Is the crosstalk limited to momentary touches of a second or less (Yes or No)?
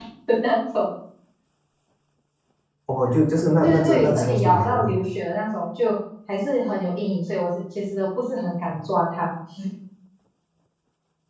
No